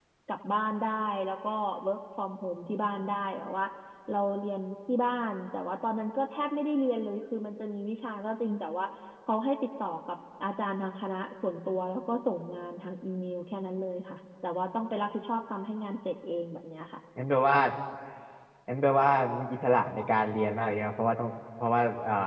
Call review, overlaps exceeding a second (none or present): none